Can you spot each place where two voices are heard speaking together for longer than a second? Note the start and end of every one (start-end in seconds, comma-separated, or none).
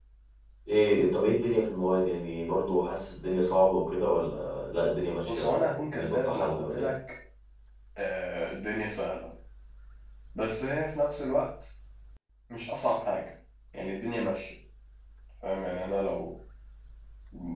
5.3-6.9